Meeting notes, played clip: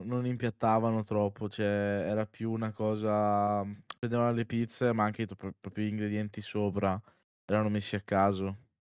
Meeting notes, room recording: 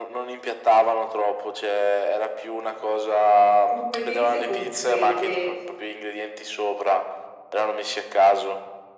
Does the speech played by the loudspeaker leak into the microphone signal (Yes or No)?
Yes